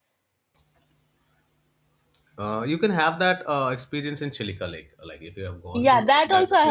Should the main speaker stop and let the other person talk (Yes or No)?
Yes